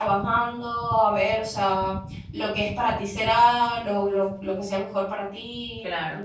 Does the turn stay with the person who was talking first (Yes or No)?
No